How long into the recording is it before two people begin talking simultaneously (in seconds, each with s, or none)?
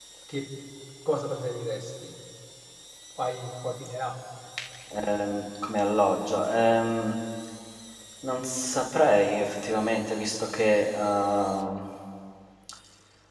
none